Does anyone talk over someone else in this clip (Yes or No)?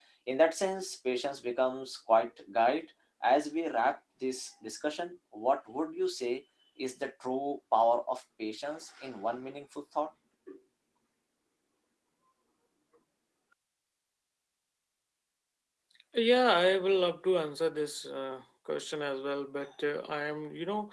No